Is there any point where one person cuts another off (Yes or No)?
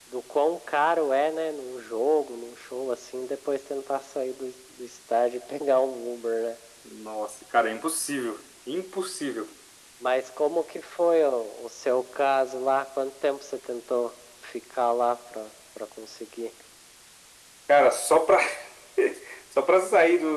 No